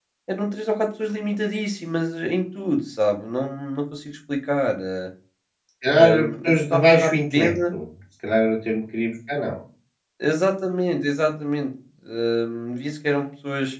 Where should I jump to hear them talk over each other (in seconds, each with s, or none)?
5.9 s